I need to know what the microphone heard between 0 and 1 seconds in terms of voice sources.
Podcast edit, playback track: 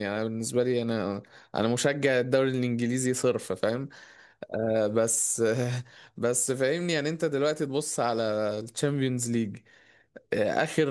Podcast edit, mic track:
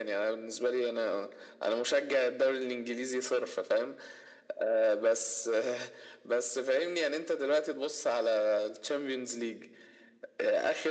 echo only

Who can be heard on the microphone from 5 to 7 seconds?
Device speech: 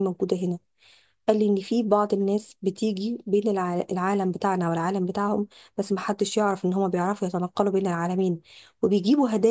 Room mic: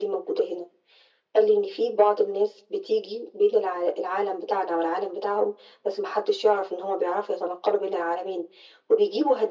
echo only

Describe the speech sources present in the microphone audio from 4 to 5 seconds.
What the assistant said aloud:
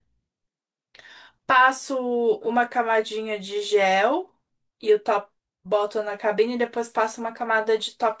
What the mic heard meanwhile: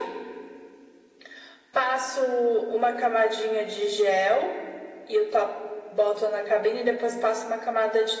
echo only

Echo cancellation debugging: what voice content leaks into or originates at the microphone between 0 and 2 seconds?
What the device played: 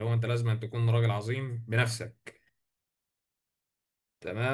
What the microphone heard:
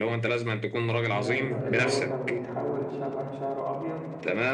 both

